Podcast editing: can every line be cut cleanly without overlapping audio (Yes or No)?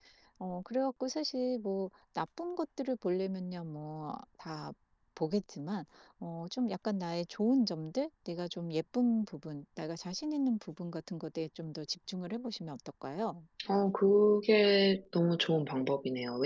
Yes